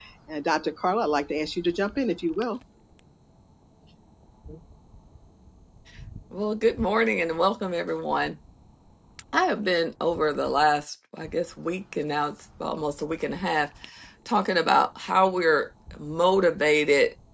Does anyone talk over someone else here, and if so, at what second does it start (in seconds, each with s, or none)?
none